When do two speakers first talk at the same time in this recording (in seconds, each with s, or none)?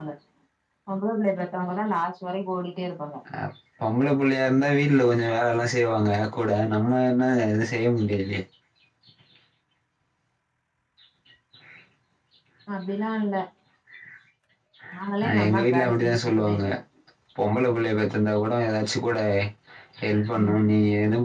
15.2 s